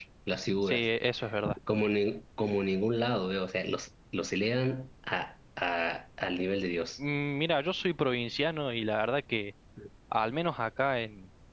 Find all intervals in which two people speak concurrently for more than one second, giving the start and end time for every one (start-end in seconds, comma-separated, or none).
none